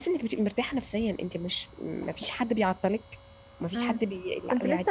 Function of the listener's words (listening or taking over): taking over